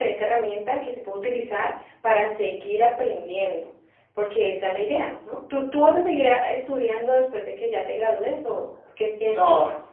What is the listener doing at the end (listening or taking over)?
taking over